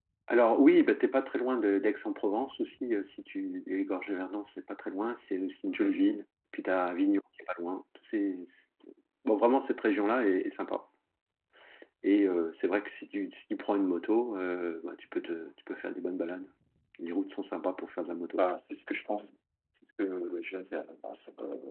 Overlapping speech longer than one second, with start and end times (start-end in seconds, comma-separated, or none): none